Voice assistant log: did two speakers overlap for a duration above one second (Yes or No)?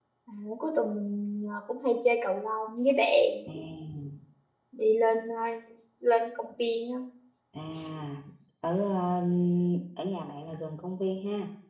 No